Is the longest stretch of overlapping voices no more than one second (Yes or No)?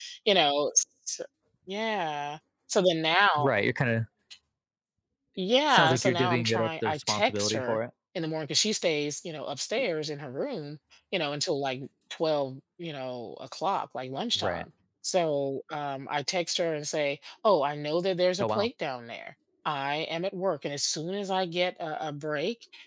No